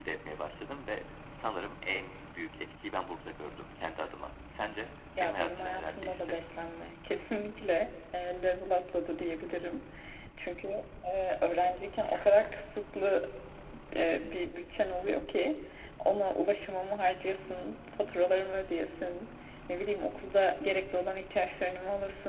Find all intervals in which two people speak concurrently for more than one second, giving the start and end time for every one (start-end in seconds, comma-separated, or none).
5.2-6.4